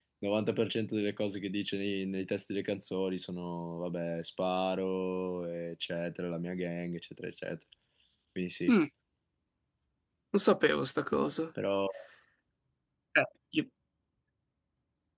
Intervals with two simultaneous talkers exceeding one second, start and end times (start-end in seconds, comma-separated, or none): none